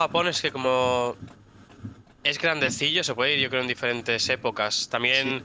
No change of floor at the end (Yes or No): Yes